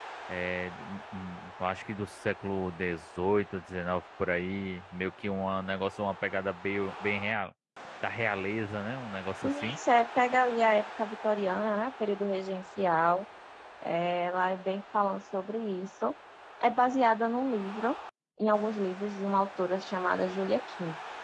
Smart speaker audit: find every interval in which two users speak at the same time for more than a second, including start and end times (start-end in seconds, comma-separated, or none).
none